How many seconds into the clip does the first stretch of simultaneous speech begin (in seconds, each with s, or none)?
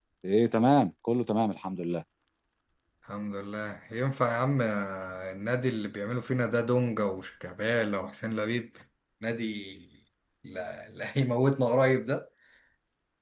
none